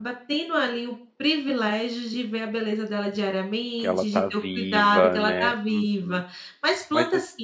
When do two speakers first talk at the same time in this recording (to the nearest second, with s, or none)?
4 s